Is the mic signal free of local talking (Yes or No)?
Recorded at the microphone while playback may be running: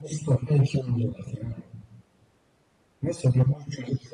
Yes